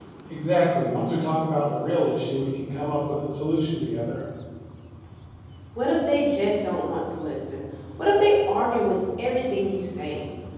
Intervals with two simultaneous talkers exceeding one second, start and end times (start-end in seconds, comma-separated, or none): none